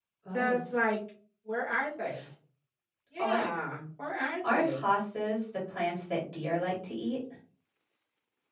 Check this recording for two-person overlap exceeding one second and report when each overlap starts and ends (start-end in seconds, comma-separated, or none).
none